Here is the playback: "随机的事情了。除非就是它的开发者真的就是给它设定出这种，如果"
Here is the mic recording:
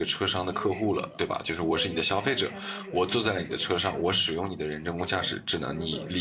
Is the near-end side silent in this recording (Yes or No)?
No